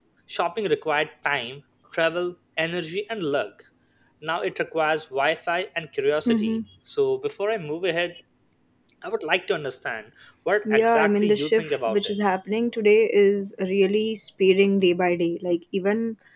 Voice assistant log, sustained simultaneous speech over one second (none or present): present